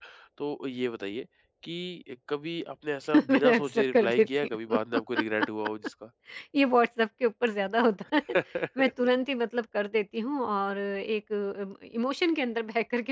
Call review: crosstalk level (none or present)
present